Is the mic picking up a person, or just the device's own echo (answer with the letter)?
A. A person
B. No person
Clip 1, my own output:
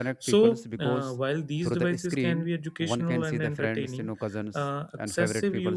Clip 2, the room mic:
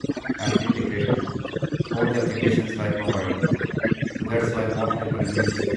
A